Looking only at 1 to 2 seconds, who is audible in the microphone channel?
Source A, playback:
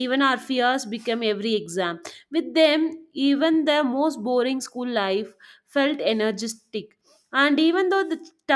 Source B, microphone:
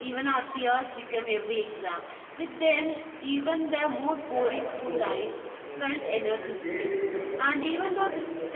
echo only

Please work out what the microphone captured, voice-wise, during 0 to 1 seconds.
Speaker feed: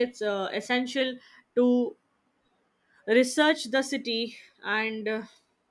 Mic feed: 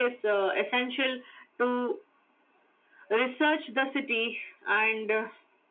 echo only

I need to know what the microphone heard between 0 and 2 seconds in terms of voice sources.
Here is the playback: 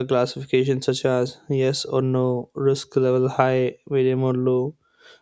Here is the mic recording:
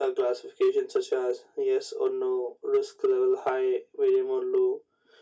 echo only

